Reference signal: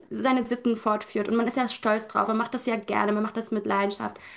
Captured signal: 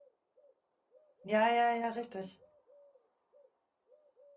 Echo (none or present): none